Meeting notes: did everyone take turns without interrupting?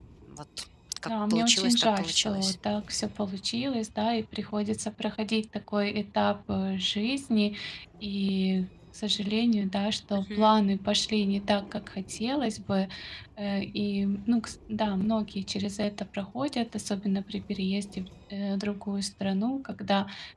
No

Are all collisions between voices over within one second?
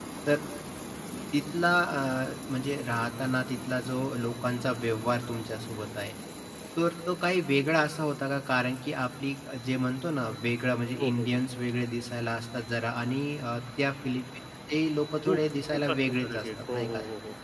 No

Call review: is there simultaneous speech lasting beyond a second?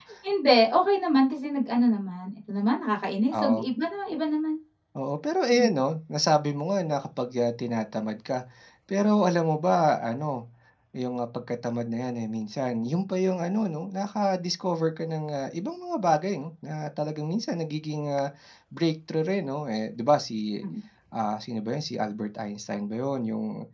No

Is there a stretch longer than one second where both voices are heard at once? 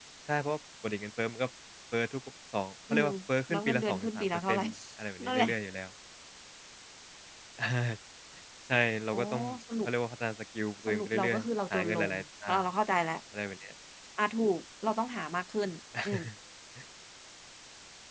Yes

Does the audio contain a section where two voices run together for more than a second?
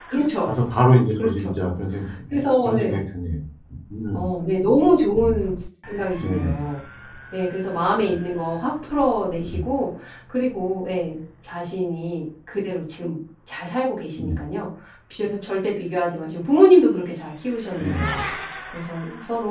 No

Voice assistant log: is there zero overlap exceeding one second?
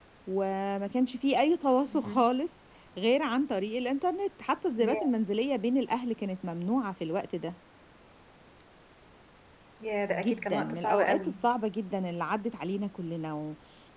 No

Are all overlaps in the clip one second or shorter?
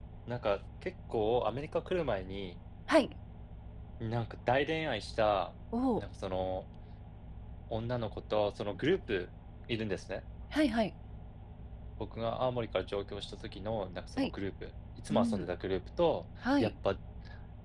Yes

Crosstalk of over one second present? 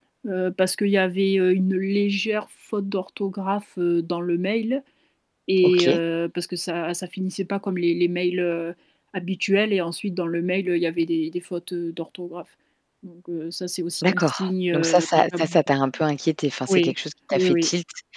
Yes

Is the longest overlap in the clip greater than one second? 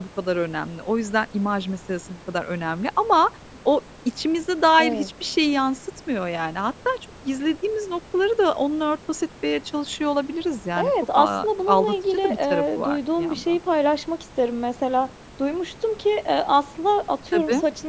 Yes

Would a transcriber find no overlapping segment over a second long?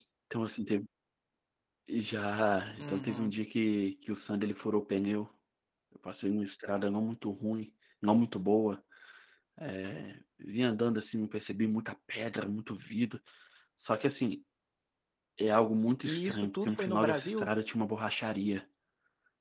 No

